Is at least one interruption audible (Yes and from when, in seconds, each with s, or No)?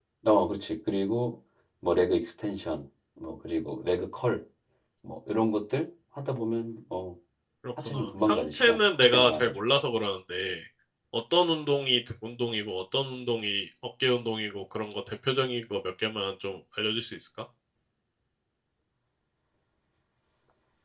Yes, from 7.8 s